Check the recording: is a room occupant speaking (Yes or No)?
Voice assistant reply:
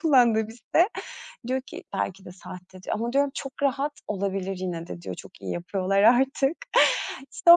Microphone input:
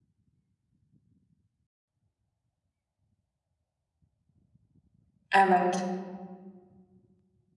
Yes